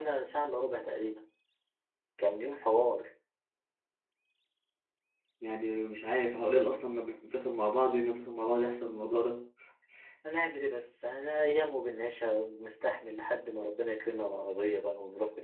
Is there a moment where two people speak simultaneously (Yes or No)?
No